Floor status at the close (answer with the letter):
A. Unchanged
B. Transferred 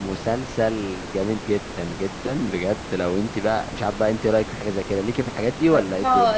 B